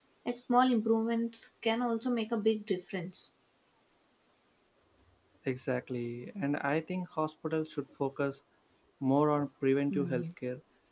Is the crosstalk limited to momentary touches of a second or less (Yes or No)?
Yes